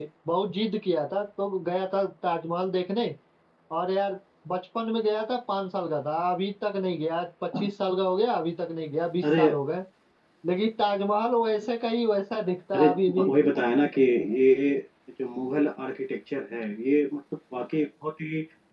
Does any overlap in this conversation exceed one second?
No

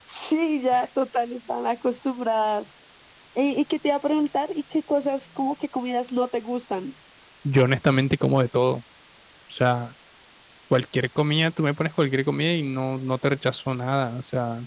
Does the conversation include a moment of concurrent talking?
No

